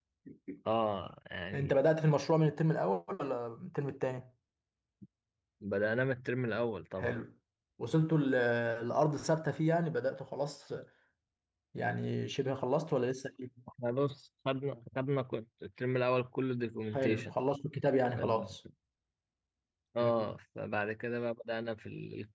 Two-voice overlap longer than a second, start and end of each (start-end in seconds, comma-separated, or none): none